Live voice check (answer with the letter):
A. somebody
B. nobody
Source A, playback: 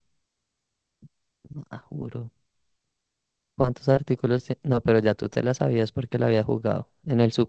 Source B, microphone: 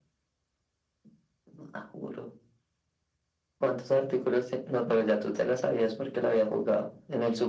B